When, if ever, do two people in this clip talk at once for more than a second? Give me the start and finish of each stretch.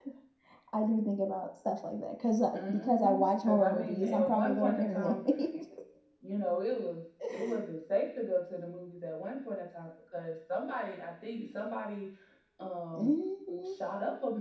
2.5-5.2

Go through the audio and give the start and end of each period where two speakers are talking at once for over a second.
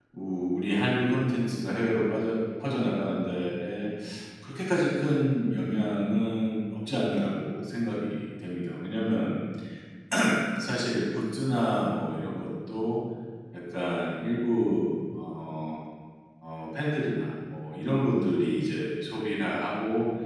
none

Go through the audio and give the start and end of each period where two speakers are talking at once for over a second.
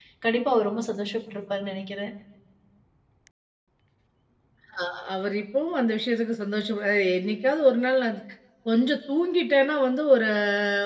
none

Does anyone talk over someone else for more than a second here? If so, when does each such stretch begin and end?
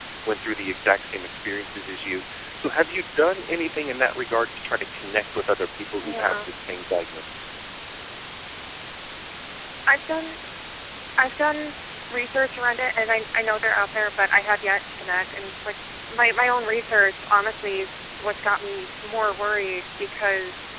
none

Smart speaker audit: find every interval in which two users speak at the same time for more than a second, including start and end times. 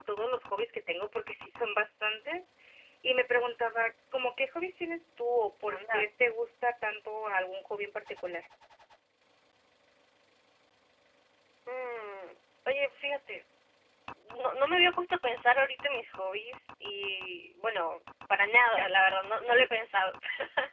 none

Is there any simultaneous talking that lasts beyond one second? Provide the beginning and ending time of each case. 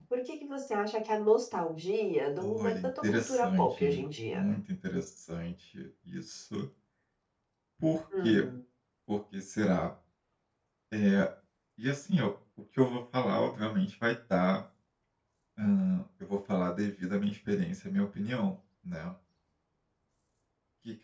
2.4-4.4

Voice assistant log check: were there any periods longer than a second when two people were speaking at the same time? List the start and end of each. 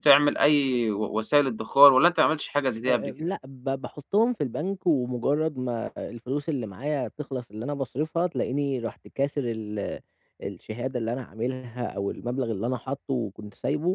none

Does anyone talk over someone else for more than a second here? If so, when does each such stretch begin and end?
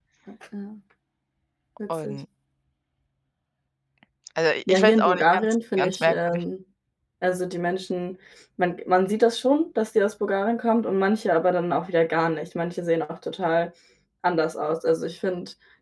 4.7-6.4

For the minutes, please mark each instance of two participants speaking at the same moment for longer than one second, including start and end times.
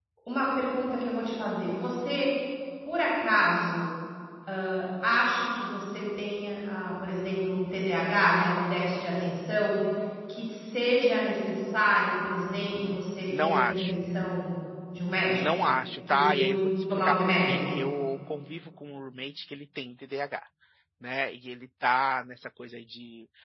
12.8-14.0, 16.1-17.7

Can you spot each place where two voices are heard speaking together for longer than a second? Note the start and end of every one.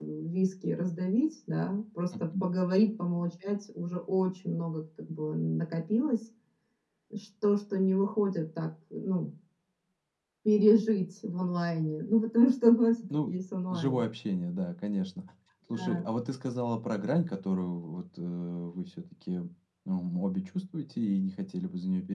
none

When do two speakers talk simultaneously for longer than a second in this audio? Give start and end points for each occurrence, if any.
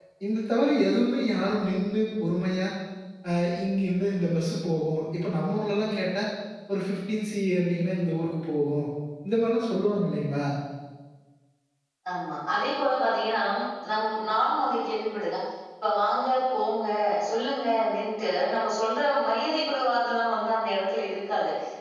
none

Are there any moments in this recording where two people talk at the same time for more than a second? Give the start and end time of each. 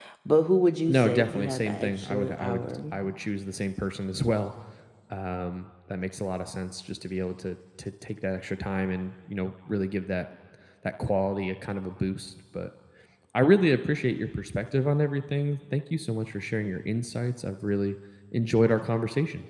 0.9-2.8

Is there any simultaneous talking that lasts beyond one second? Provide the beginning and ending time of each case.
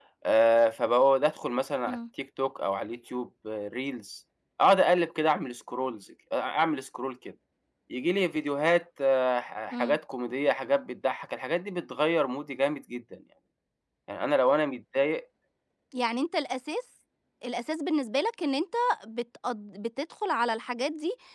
none

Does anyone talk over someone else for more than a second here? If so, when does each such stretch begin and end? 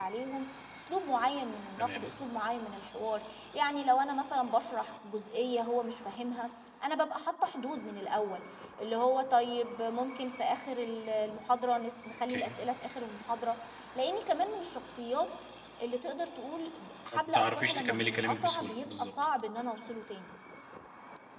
17.1-19.1

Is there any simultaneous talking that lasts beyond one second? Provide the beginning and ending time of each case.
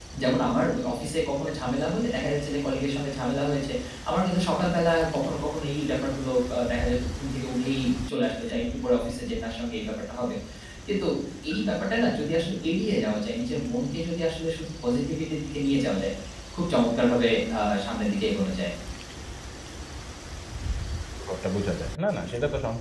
none

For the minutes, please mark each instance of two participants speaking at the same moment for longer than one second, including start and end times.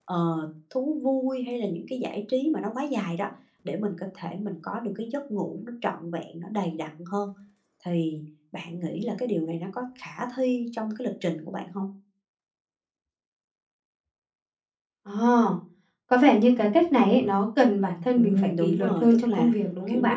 18.2-19.5

